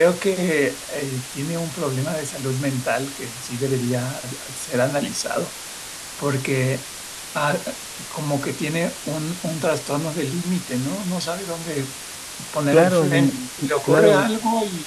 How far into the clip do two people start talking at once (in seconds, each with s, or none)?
12.7 s